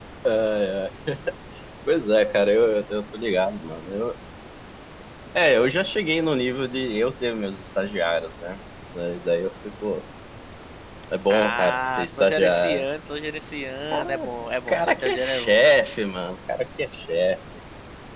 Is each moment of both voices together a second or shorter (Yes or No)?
No